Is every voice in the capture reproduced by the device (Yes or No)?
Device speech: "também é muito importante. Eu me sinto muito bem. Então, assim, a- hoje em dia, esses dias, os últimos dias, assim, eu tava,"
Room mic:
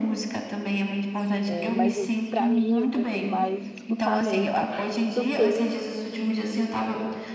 No